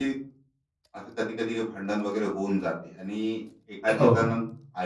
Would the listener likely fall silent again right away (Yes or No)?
Yes